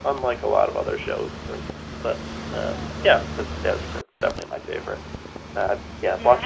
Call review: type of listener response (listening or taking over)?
taking over